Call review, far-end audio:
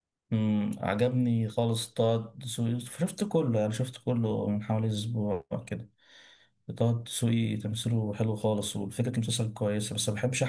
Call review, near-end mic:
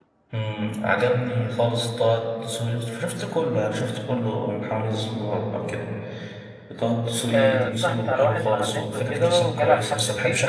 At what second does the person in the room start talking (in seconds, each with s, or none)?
7.3 s